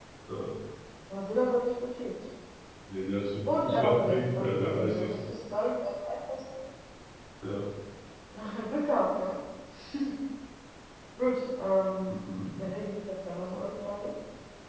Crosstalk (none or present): present